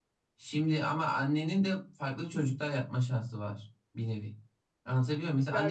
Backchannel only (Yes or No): Yes